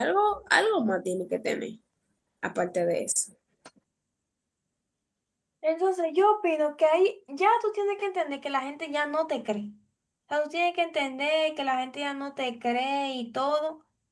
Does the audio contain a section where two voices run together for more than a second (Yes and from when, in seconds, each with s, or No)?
No